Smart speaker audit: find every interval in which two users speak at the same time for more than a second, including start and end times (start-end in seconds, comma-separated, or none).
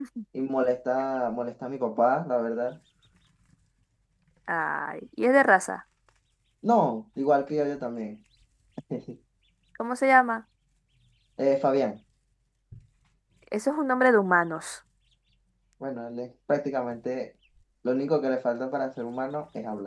none